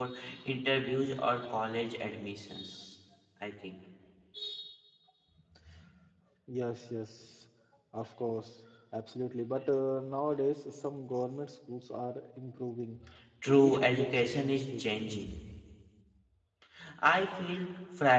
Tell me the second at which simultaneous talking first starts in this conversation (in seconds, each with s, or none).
13.4 s